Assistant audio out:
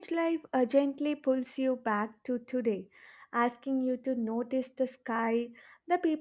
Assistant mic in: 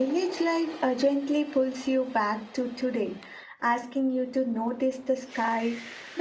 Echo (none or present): present